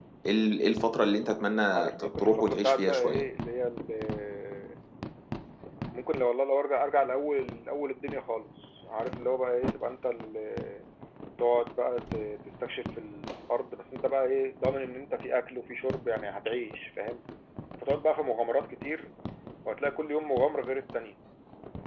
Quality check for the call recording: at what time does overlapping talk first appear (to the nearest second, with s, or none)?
2 s